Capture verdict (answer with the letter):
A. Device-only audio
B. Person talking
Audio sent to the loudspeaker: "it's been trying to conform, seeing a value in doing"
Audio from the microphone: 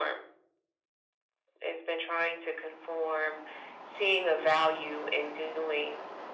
A